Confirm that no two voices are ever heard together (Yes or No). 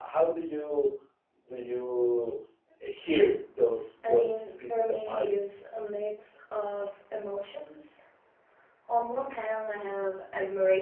No